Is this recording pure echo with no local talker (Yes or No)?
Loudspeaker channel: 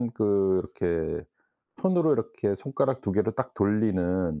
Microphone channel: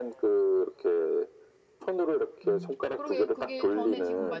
No